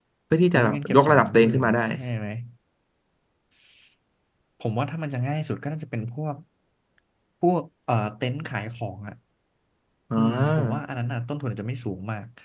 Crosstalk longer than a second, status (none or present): present